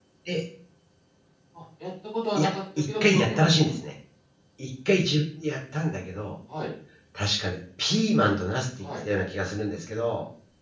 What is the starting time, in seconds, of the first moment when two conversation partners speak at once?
2.4 s

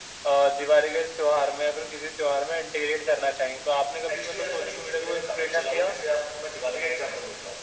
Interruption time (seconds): 4.1 s

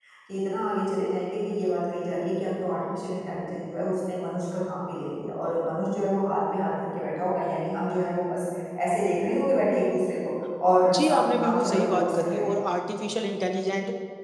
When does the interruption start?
10.9 s

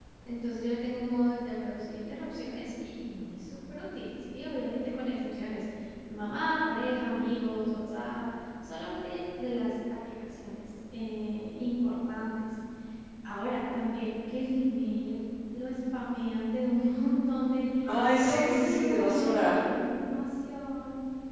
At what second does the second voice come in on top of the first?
18.2 s

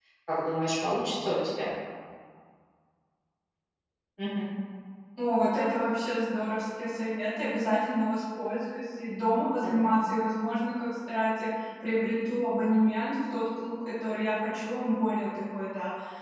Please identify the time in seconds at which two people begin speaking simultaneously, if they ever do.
none

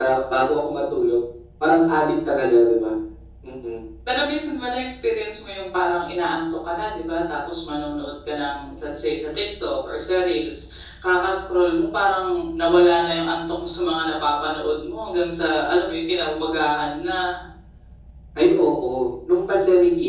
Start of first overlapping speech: none

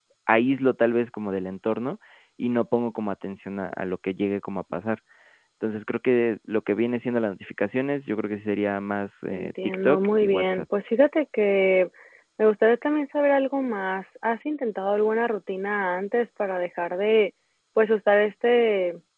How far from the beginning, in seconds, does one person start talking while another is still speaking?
9.3 s

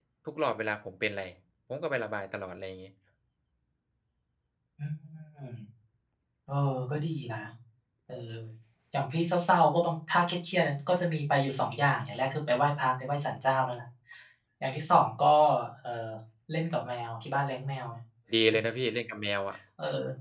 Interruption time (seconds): none

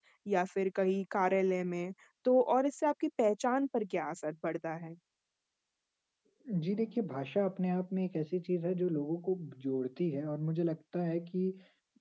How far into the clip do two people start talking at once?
none

